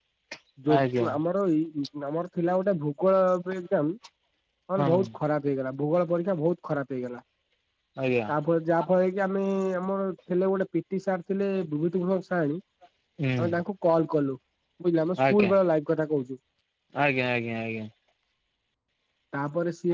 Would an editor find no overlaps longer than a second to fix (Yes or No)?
Yes